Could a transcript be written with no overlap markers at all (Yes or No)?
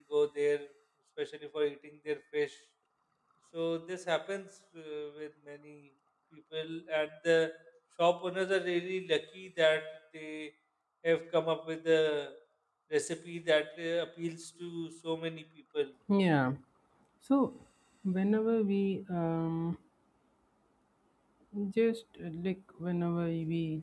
Yes